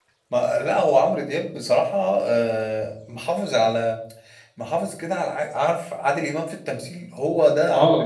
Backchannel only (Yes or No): Yes